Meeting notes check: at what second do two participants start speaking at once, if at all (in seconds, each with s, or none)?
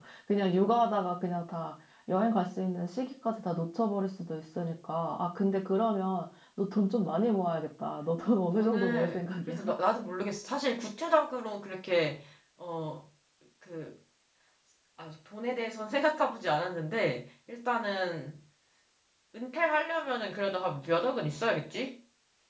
8.5 s